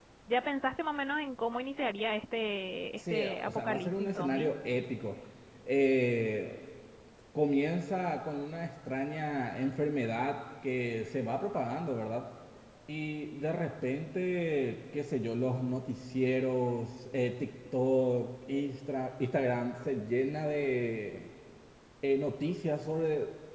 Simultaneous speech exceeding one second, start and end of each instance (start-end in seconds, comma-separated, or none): 3.0-4.5